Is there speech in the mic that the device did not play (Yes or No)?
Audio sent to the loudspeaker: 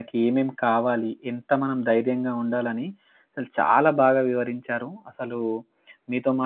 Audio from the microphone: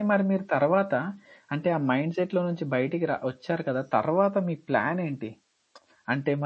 Yes